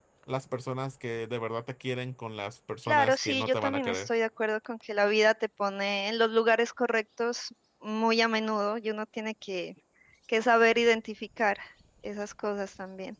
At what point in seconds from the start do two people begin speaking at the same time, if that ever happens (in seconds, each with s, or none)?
2.9 s